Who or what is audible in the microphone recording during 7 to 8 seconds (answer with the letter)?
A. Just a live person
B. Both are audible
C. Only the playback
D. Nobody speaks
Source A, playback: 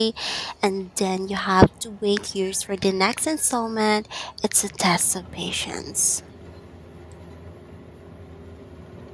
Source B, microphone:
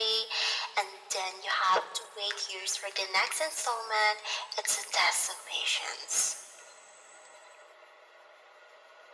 D